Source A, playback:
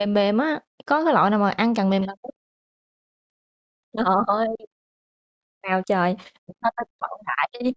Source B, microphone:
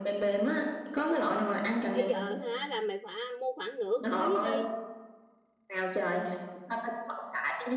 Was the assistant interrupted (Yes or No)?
Yes